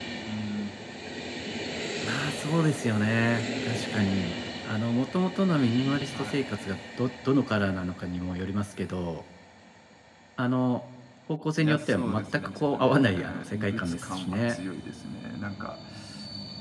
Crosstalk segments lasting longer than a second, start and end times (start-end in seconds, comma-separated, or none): 11.6-14.6